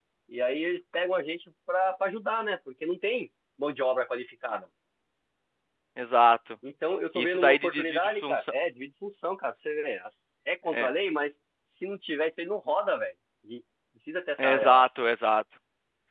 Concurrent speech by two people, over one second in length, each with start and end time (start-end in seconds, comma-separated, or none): 7.2-8.5